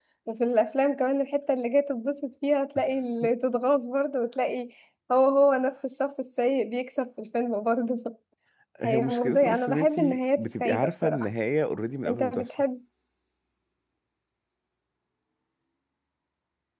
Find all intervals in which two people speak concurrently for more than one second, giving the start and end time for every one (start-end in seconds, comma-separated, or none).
8.8-11.3